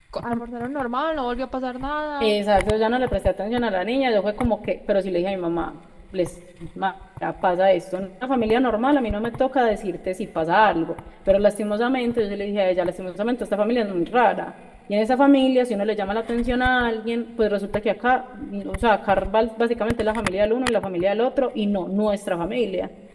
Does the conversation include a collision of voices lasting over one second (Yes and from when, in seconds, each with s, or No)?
No